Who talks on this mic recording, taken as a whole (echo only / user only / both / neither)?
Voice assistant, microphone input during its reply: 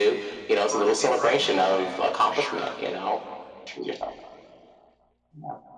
both